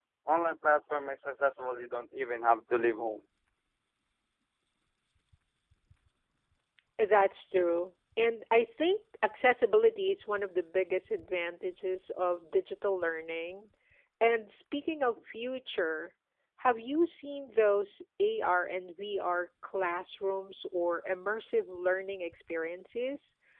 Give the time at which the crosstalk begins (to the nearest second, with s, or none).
none